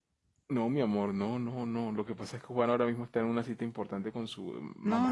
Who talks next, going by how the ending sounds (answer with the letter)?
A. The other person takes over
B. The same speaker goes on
A